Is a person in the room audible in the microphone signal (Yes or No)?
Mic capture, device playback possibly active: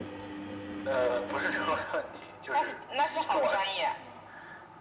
No